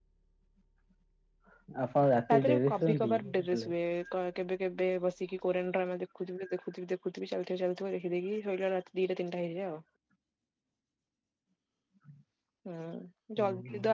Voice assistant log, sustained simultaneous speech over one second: present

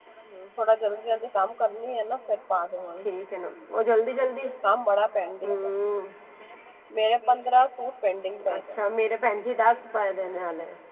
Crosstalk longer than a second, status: none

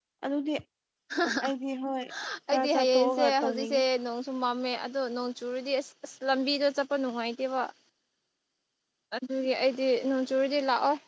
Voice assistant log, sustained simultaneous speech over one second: present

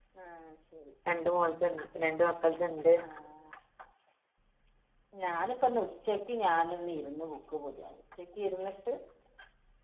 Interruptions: none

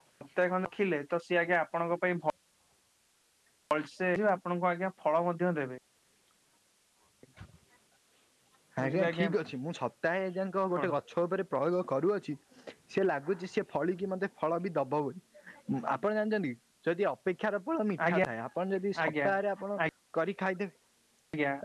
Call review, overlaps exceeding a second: none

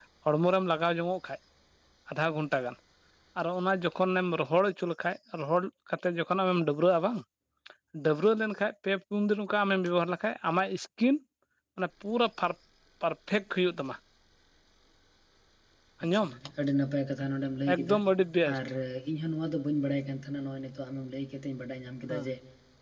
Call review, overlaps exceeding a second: none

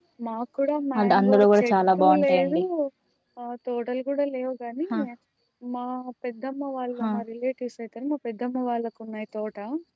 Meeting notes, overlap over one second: present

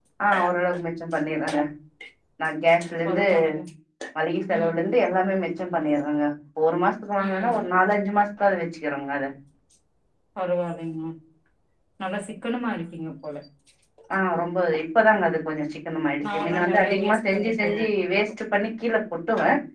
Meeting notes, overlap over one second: present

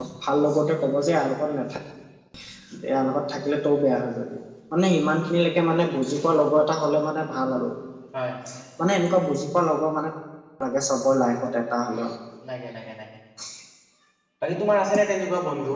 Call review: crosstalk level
none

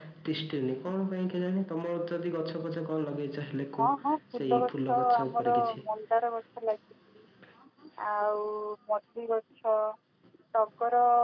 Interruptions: present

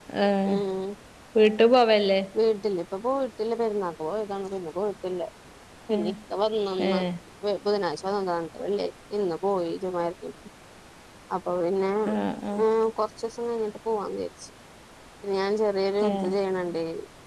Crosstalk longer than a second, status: none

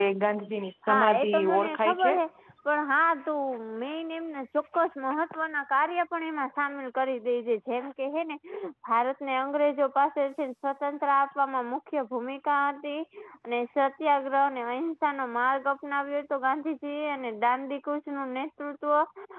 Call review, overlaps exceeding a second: present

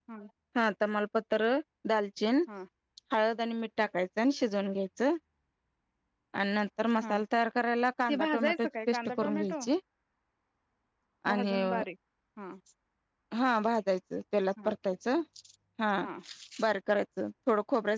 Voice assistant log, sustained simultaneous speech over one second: present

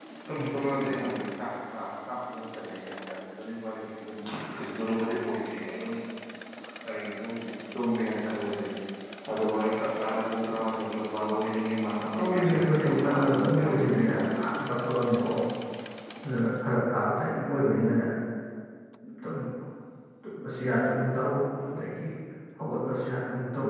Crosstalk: present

